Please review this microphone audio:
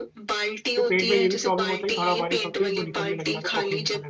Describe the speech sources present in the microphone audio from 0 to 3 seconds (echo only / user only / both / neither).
both